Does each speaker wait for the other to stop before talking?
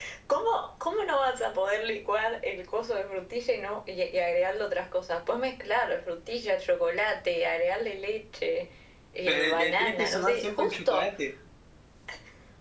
No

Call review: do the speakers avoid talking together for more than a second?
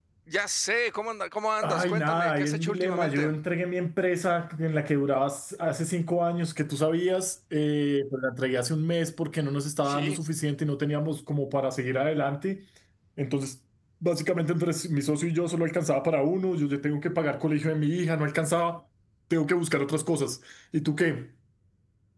No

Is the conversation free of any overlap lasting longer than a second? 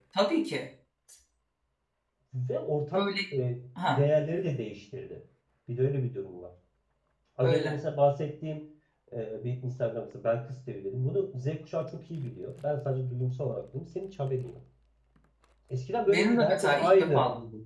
No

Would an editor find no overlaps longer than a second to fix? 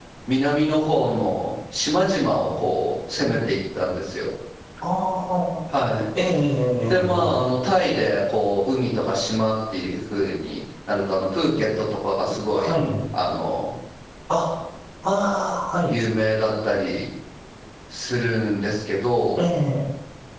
Yes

